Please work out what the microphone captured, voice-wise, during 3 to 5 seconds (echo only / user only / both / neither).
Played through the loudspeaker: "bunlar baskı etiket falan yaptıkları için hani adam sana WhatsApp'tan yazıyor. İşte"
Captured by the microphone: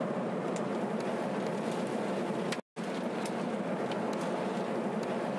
neither